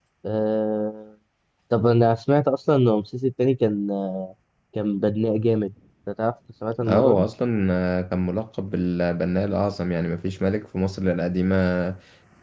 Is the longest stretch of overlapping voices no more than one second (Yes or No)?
Yes